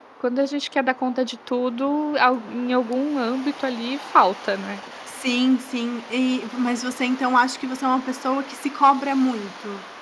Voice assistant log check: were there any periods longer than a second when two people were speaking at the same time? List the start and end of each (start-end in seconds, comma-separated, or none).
none